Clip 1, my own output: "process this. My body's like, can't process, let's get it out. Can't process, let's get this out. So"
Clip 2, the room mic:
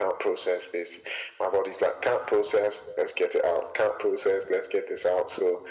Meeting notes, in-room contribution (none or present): none